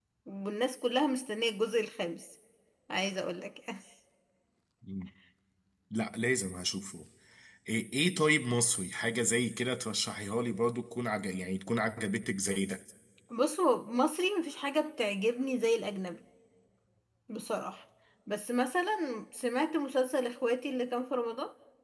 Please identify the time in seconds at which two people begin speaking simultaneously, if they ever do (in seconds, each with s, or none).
none